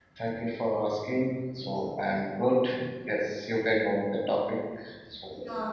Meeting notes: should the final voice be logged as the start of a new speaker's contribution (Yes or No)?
Yes